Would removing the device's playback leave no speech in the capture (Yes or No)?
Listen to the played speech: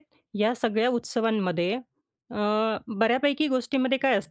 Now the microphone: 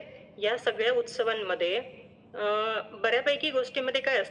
Yes